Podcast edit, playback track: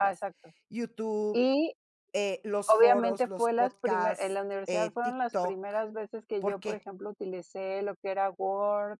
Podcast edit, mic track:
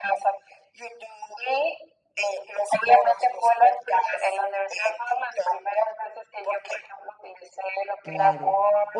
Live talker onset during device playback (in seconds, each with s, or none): 8.0 s